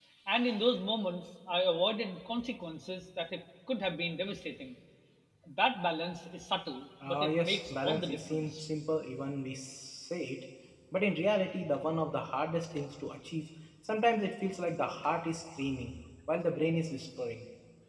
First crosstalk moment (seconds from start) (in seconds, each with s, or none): 7.0 s